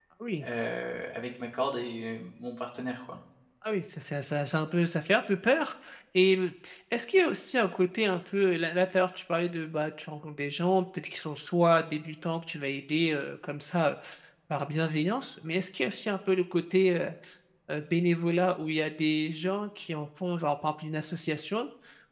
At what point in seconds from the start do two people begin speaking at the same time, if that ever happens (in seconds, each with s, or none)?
none